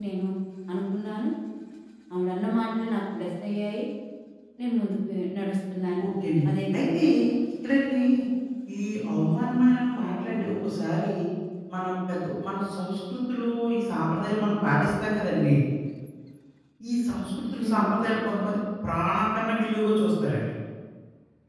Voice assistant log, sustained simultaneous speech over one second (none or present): none